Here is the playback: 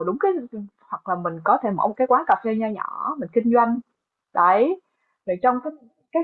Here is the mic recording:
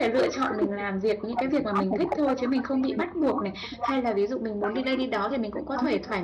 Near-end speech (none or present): present